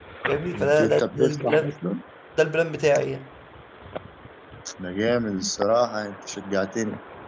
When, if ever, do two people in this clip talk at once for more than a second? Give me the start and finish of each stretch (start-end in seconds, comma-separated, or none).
0.5-1.7